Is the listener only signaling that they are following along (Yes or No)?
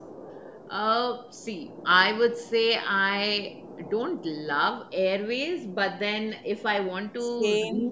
Yes